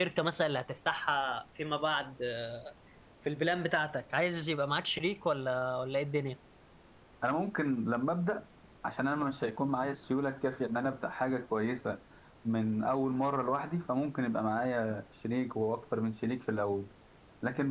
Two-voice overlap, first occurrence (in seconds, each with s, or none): none